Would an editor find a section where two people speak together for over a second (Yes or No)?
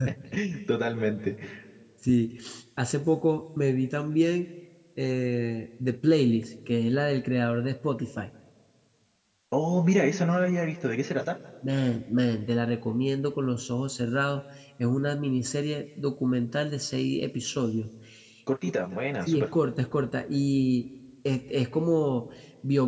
No